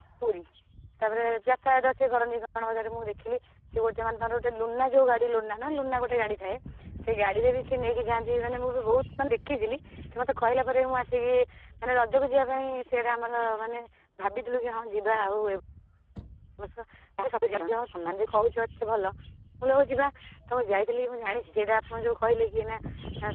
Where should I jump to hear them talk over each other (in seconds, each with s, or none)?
none